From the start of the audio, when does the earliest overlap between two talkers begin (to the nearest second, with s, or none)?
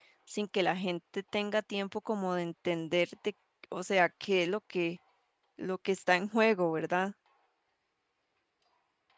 none